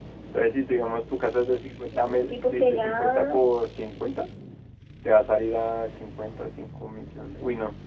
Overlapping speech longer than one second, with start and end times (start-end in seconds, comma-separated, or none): 1.9-3.4